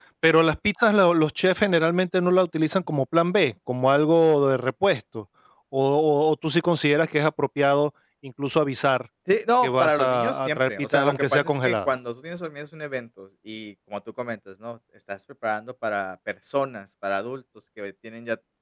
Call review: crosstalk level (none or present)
present